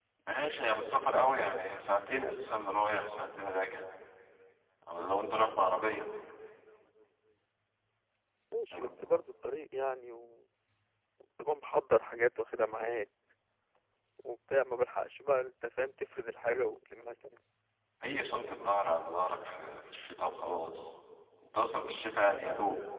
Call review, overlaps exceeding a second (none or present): none